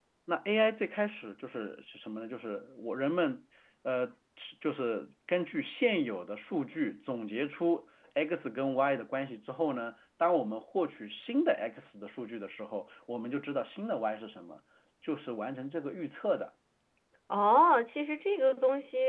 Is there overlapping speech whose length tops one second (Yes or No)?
No